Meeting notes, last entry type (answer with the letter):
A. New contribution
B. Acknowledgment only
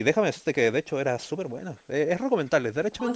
A